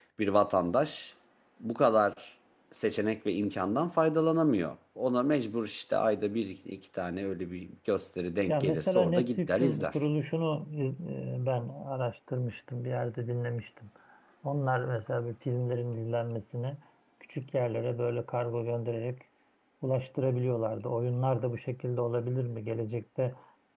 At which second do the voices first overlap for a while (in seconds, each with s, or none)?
8.5 s